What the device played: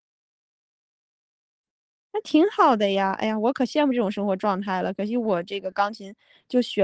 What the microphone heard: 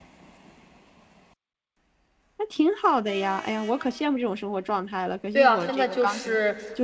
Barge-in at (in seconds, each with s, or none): 5.3 s